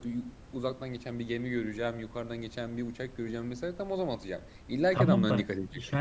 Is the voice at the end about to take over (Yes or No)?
Yes